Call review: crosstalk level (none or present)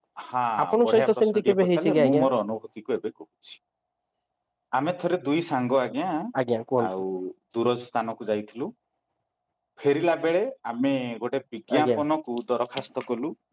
present